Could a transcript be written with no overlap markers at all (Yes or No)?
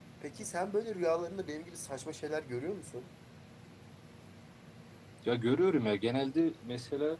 Yes